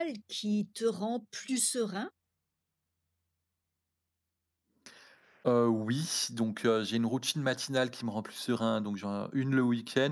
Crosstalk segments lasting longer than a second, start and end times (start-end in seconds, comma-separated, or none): none